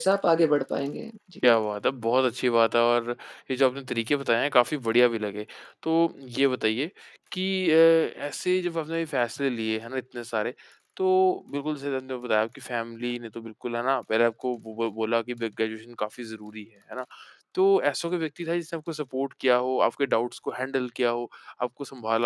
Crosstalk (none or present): none